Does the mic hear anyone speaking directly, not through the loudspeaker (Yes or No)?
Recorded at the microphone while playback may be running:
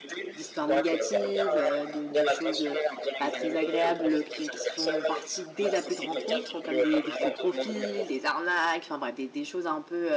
Yes